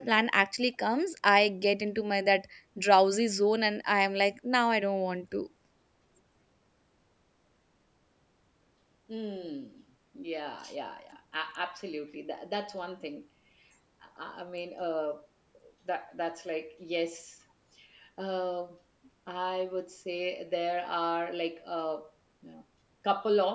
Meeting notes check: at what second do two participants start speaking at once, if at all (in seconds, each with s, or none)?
none